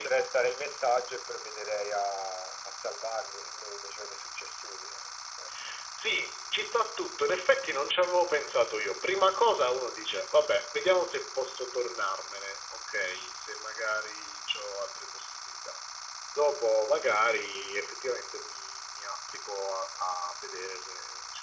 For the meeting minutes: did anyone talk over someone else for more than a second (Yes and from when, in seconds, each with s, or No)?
No